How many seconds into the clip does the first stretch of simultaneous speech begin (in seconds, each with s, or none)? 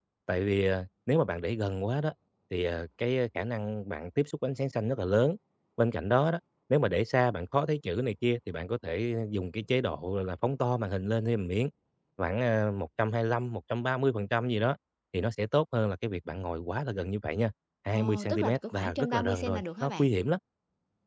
17.9 s